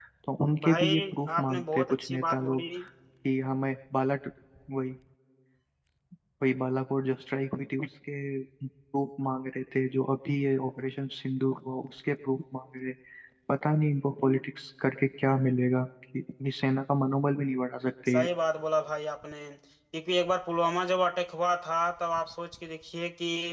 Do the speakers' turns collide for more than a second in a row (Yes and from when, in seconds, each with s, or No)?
Yes, from 0.6 s